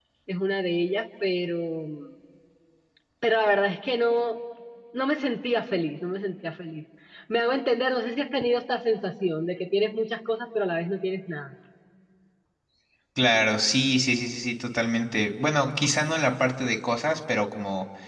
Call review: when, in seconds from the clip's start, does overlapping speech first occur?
none

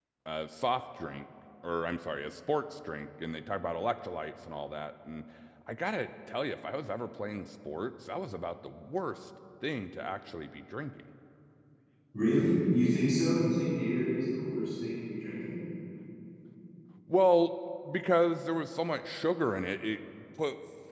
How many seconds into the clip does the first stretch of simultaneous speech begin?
none

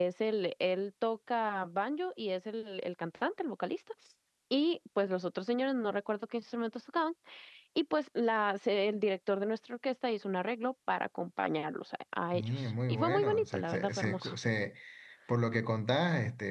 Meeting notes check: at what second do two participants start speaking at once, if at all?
12.3 s

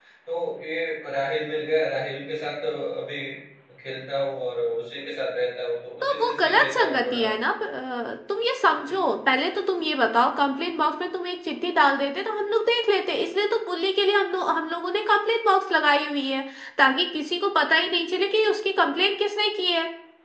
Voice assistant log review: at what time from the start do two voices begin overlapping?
6.0 s

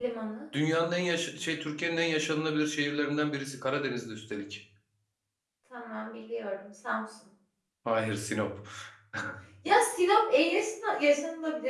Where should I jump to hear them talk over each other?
none

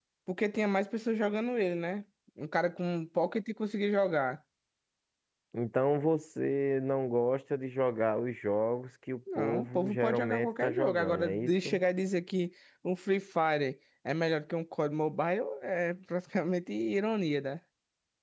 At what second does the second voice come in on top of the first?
9.3 s

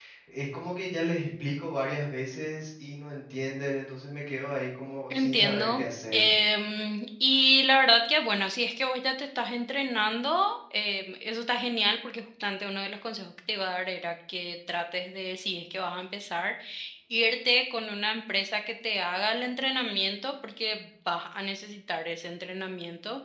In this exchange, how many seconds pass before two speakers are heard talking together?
5.1 s

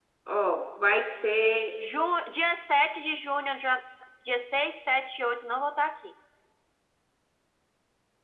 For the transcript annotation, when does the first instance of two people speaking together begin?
none

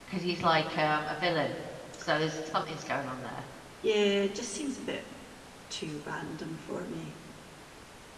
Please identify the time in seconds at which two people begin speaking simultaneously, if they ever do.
none

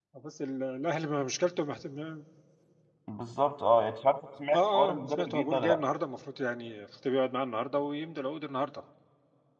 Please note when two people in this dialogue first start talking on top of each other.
4.5 s

